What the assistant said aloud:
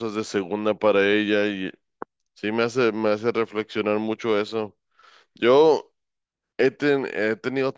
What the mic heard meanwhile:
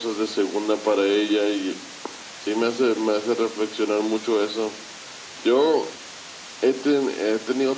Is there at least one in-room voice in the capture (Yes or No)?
No